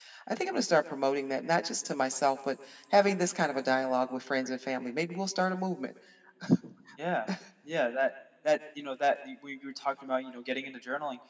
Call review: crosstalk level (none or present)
none